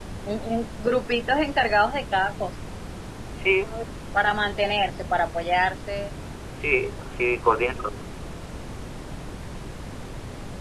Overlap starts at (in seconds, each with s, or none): none